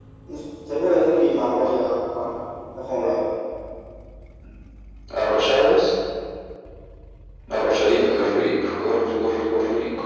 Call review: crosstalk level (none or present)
none